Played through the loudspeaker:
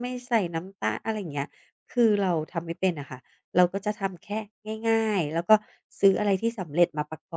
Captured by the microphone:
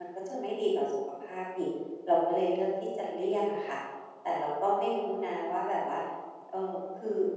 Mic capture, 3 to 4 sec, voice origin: user only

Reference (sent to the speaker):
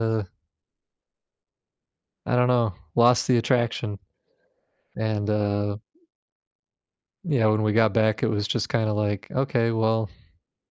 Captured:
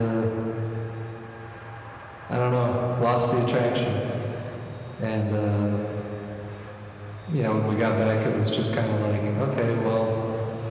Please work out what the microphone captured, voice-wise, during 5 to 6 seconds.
echo only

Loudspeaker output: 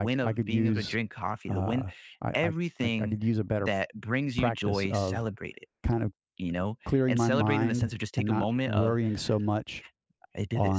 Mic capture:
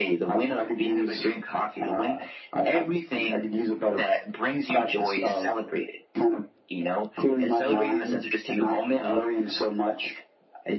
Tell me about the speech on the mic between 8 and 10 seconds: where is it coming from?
echo only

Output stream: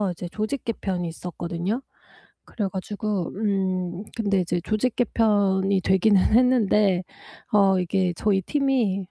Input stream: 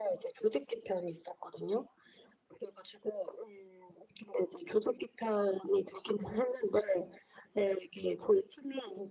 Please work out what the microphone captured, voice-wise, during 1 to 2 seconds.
echo only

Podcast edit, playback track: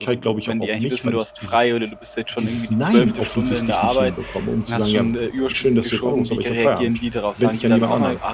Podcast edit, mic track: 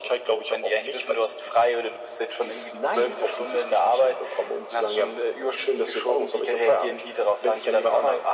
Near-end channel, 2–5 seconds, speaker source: echo only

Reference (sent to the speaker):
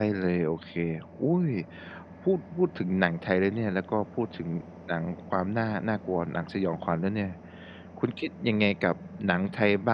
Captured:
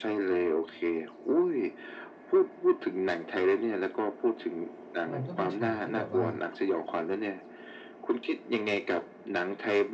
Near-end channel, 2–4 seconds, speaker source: echo only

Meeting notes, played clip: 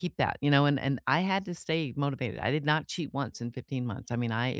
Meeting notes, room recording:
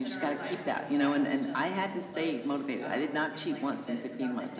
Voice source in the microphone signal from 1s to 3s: both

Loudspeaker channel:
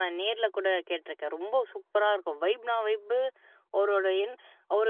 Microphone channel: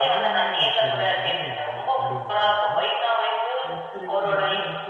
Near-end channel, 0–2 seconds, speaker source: both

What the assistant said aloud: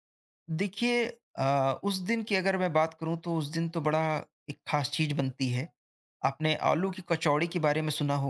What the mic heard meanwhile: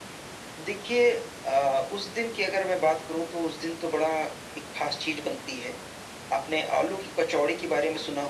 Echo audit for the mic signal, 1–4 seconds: echo only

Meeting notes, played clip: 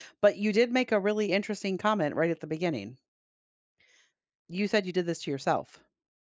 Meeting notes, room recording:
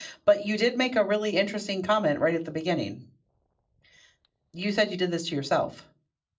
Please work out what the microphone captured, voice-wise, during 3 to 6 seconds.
echo only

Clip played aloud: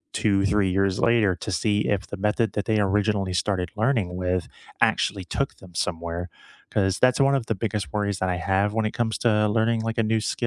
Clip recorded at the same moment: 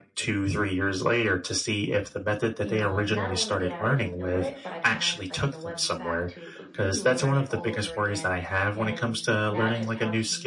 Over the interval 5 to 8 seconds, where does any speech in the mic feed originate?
both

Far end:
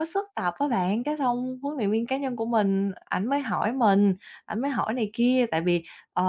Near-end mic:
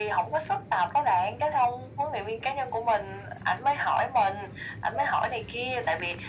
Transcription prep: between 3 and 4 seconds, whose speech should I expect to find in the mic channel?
echo only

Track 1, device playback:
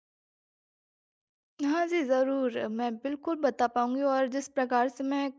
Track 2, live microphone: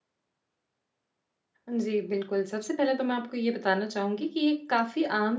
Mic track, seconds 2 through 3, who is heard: user only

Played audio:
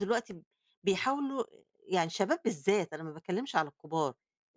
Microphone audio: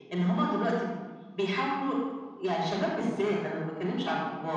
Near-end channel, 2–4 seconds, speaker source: echo only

